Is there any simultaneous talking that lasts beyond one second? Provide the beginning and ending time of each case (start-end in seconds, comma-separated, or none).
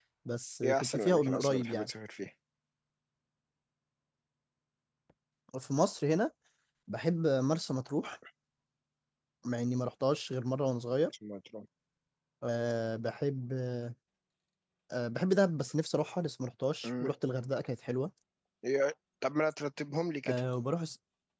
0.6-1.9